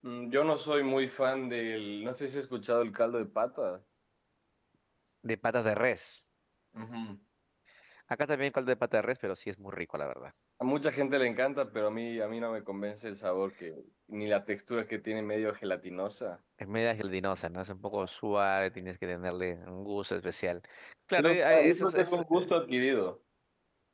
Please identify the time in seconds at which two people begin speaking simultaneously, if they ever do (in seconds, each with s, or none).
21.2 s